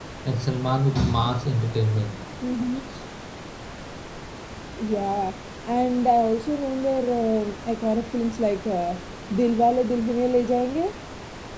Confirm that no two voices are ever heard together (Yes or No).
Yes